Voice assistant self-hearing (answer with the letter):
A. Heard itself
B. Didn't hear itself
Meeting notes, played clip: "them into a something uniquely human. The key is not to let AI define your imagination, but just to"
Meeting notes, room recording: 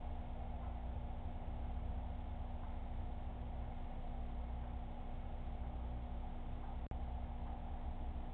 B